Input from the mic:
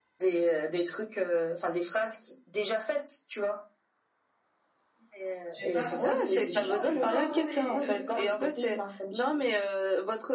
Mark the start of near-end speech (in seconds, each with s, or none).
5.5 s